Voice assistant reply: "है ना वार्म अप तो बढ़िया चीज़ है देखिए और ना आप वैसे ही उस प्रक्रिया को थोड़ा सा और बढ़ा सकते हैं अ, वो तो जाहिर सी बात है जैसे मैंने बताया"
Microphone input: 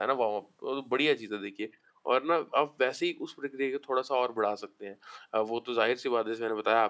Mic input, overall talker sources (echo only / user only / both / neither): echo only